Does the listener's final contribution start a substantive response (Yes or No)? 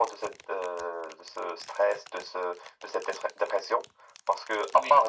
No